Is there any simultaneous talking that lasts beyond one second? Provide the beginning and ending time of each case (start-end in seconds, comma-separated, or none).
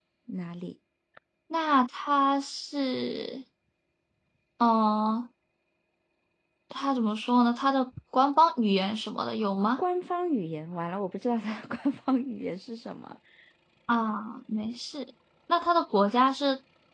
none